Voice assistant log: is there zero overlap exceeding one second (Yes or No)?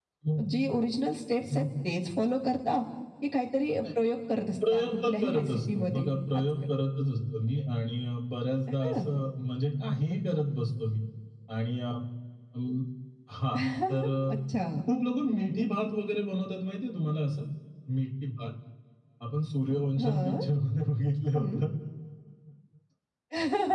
No